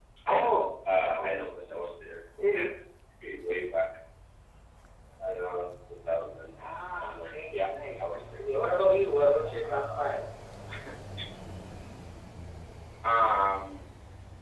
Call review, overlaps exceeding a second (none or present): present